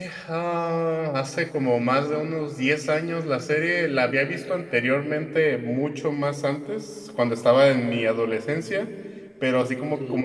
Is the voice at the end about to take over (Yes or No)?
No